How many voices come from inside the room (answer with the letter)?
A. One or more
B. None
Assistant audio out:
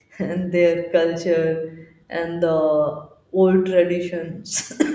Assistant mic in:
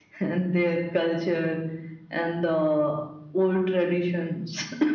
B